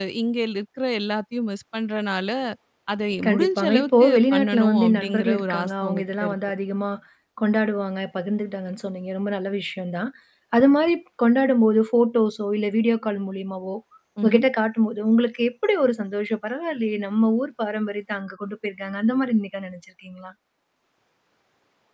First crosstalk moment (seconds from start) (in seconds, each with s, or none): 3.2 s